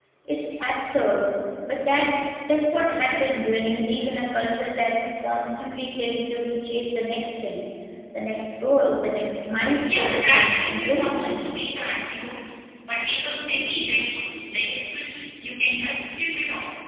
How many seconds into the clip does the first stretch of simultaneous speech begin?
9.9 s

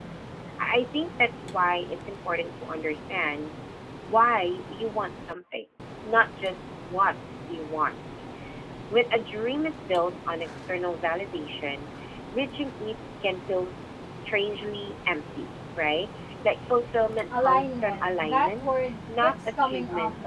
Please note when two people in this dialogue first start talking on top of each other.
17.3 s

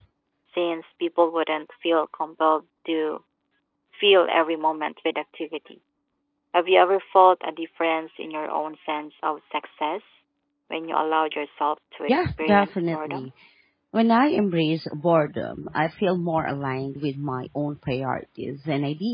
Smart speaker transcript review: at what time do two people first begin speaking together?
12.1 s

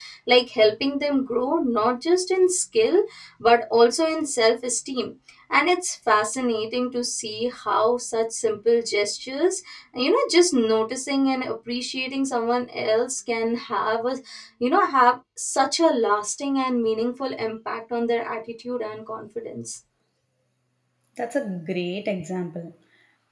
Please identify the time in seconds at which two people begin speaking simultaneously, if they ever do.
none

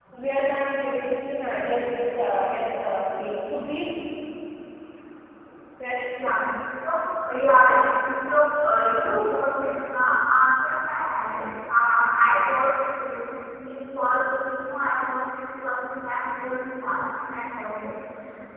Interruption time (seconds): none

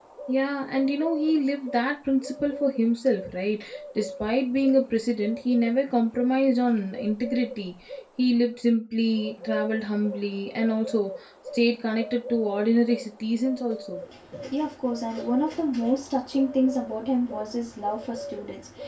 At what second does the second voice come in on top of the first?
none

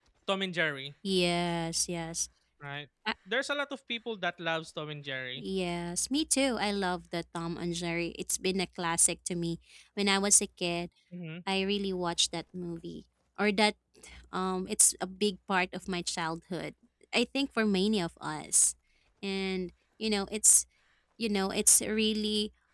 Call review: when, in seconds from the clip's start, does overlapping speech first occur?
none

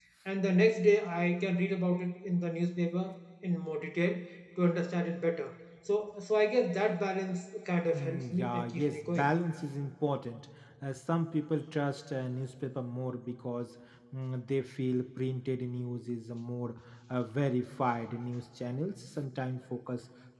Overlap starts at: 7.9 s

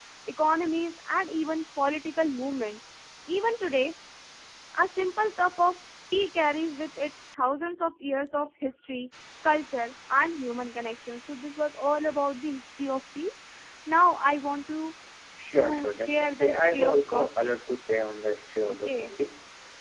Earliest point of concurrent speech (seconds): 15.5 s

